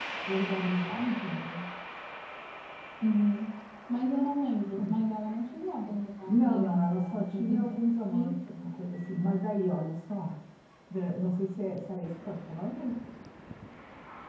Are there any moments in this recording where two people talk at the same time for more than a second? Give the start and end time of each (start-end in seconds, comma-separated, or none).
6.3-7.7